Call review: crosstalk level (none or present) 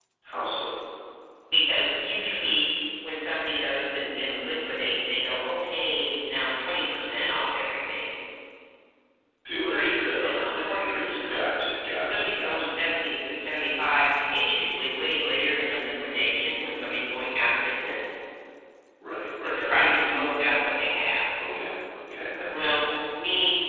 present